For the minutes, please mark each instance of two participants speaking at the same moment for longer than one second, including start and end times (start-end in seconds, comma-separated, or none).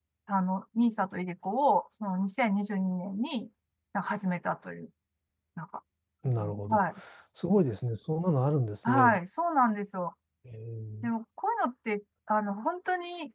none